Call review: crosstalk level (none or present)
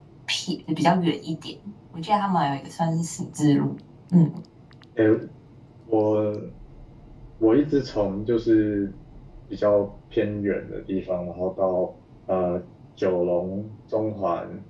none